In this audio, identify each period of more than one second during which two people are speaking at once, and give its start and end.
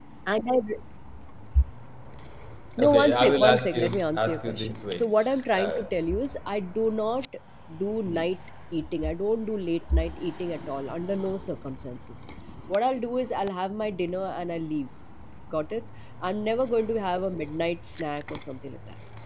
2.8-5.1

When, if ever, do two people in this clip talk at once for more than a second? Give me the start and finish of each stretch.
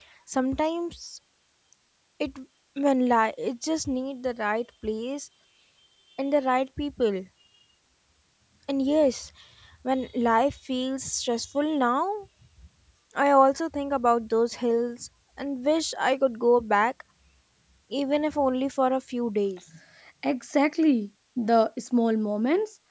none

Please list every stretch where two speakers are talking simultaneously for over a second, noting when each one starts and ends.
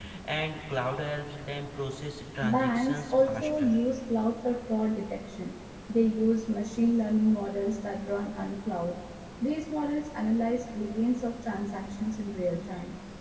2.4-3.8

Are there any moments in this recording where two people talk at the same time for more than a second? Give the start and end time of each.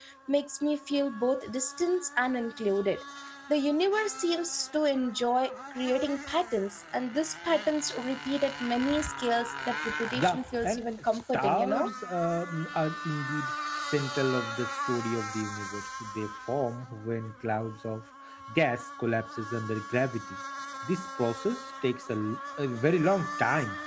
10.2-11.9

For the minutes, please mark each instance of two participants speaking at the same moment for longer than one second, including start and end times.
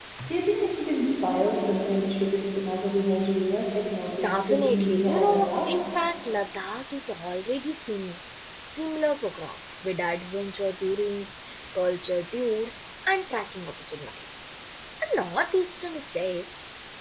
4.2-5.7

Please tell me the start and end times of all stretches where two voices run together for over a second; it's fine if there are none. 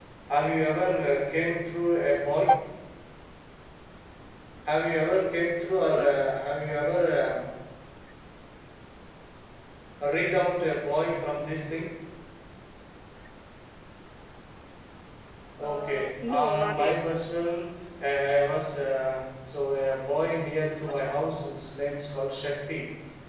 15.6-17.0

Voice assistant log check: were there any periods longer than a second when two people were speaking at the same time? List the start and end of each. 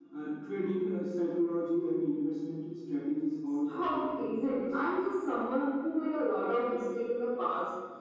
3.7-4.9

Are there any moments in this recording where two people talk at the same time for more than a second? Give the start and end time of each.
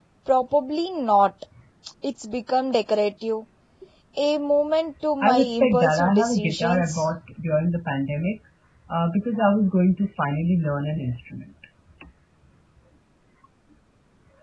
5.2-7.0

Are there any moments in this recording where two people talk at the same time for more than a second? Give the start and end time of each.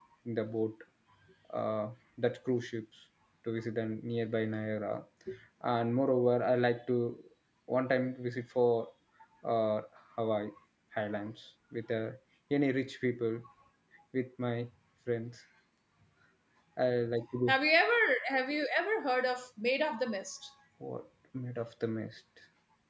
none

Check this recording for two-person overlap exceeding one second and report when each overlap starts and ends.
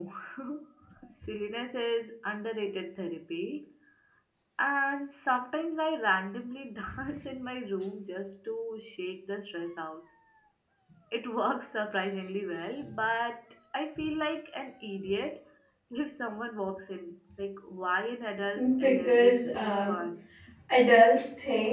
18.8-20.0

